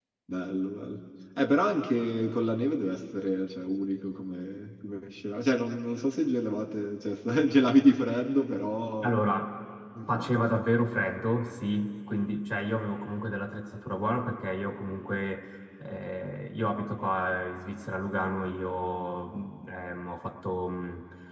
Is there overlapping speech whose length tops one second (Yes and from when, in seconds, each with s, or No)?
No